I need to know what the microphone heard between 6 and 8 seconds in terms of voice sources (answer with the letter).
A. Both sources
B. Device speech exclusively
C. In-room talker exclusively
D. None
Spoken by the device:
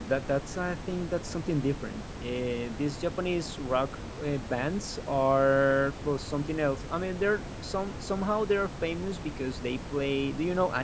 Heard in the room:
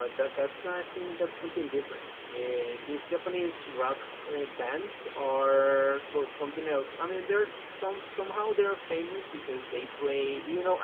B